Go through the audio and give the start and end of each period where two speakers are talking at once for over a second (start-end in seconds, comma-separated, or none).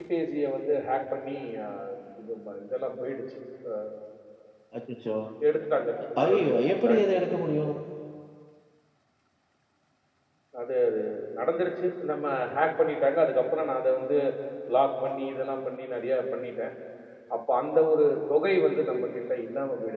6.2-7.7